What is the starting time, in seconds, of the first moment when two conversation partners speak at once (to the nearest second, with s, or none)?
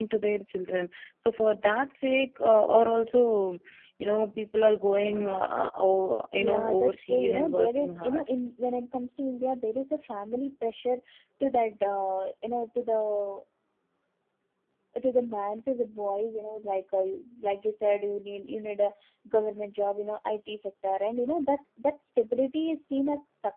6 s